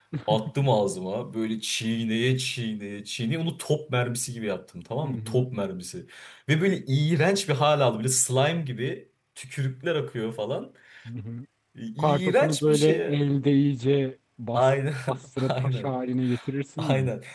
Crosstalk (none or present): present